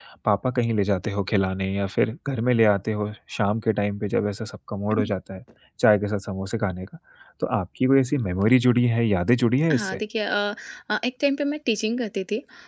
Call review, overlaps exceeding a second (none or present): none